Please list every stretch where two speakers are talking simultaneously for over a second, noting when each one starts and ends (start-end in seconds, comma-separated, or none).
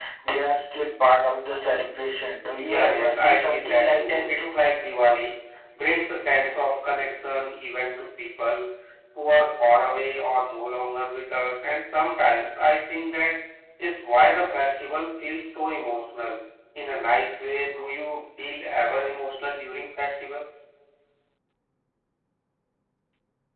2.6-4.5